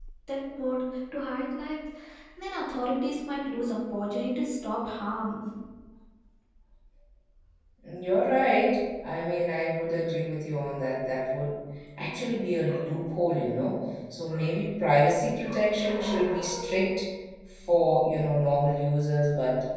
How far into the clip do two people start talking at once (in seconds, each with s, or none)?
none